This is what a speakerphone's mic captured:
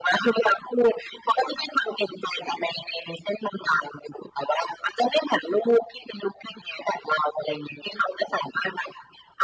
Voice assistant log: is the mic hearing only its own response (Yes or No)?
Yes